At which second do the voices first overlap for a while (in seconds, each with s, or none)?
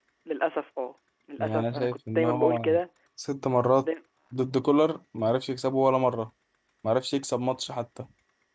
1.4 s